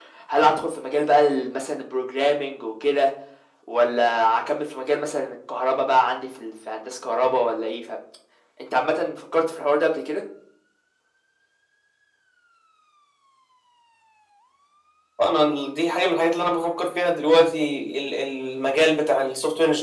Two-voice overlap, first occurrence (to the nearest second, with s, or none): none